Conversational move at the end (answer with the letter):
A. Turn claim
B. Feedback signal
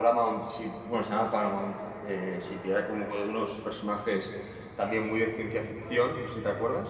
A